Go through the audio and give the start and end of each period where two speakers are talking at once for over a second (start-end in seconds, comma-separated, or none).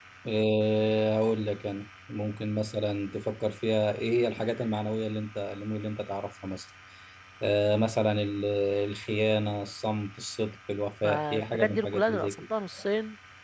11.0-12.5